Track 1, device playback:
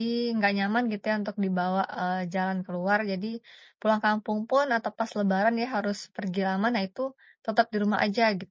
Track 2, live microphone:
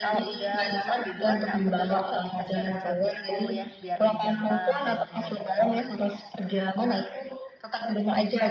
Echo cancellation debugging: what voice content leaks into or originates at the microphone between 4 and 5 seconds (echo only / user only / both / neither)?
both